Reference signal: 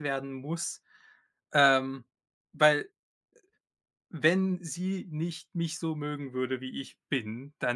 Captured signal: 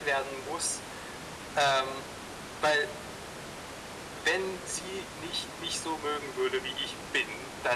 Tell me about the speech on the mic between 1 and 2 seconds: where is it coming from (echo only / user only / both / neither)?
echo only